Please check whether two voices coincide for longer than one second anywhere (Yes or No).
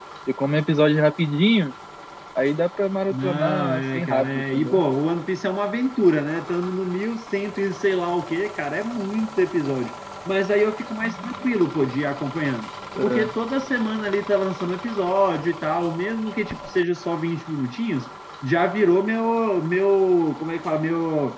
Yes